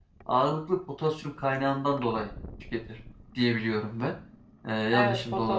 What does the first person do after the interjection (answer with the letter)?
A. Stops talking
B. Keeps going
A